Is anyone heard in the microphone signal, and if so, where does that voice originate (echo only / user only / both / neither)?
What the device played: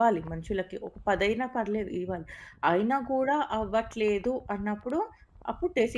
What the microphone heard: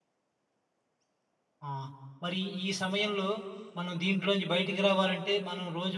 user only